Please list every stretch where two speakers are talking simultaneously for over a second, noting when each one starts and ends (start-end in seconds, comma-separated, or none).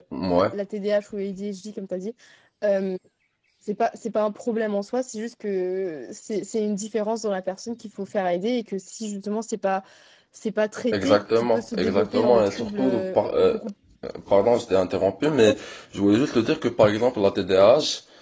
10.9-13.5